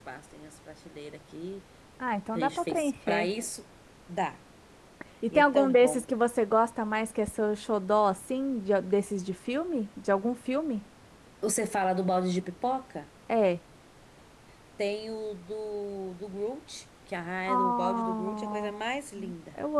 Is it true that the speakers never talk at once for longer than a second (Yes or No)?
No